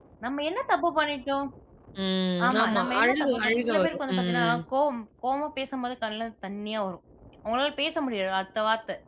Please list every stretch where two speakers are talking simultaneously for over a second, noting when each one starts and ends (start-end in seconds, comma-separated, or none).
2.5-4.6